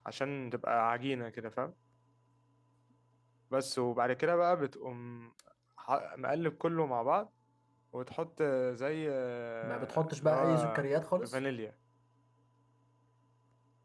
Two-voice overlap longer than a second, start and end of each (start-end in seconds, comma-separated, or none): 9.6-10.8